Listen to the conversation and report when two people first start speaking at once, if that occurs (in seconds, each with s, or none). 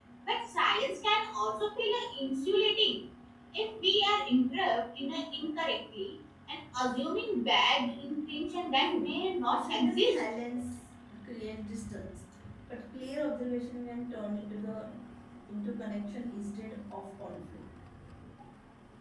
8.8 s